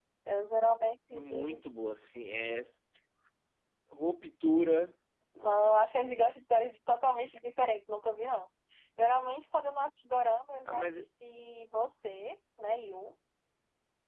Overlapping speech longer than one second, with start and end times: none

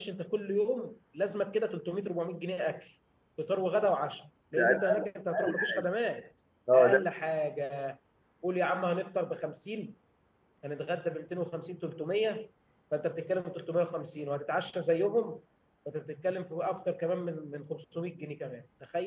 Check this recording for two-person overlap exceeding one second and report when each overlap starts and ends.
4.6-5.8

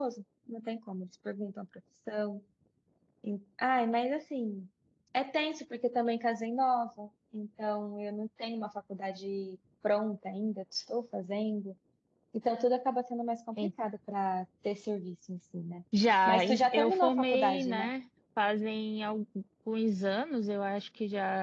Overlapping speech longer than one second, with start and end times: 16.3-17.9

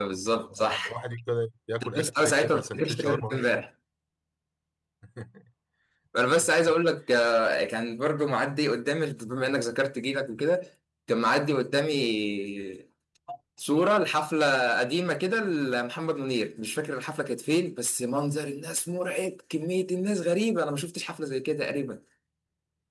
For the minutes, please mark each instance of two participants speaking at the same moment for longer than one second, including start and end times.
2.0-3.5

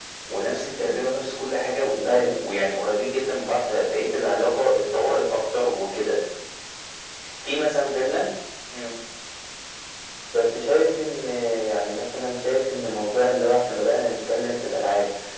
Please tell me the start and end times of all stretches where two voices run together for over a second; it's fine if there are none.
none

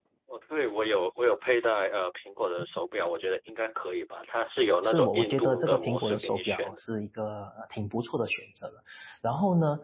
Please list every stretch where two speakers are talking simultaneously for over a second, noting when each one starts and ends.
4.8-6.8

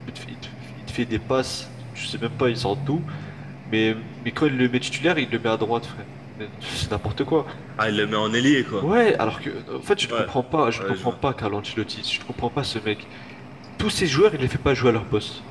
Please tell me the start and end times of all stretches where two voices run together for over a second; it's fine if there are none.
none

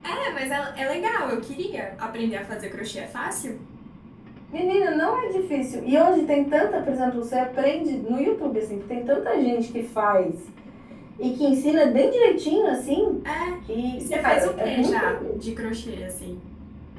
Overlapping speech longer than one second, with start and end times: 14.0-15.5

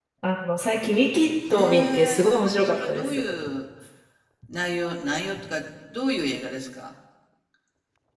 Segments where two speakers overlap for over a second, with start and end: 1.5-3.2

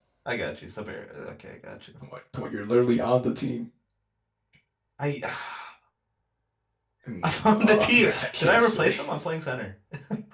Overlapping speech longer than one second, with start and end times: 7.2-8.9

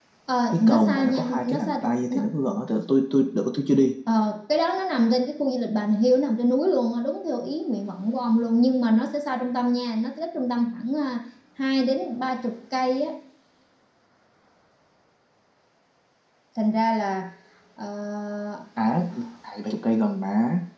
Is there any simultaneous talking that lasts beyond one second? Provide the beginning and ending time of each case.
0.5-2.2

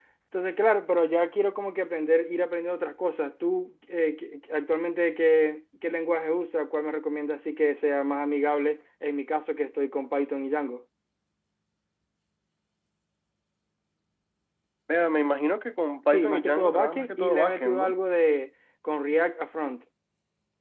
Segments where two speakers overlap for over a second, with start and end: 16.1-17.9

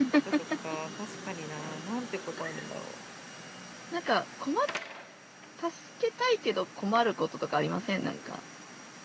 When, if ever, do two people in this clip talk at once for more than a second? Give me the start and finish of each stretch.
none

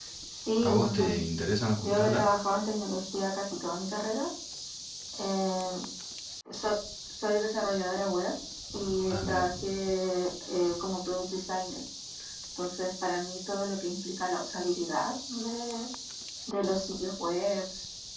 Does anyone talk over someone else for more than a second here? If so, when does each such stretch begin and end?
none

